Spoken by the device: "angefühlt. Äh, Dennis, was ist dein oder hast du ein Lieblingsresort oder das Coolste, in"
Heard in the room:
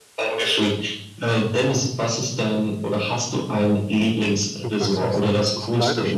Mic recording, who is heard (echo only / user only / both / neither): both